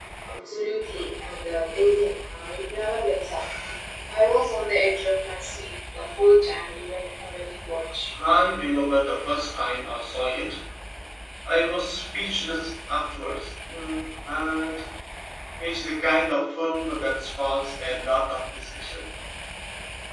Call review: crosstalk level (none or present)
none